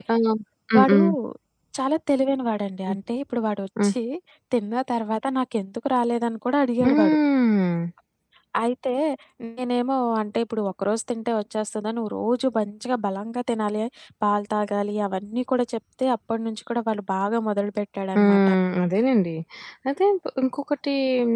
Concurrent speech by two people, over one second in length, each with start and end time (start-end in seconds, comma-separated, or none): none